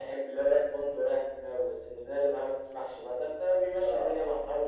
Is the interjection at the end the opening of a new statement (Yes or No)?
No